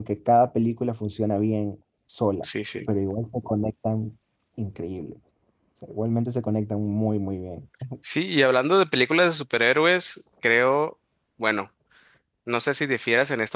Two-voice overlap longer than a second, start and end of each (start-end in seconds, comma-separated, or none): none